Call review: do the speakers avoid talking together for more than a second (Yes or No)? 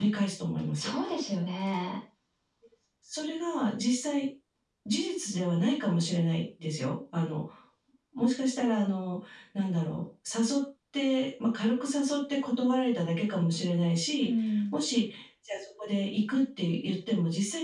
Yes